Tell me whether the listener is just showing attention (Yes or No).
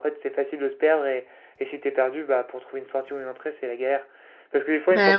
Yes